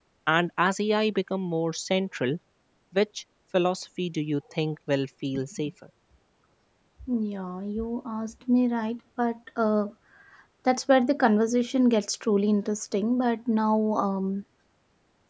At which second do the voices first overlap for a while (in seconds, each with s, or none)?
none